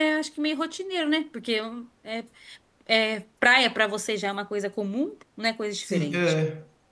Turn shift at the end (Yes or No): Yes